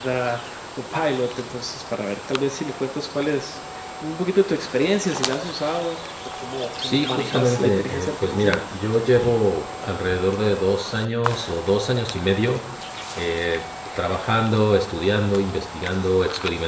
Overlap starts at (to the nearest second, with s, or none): 7 s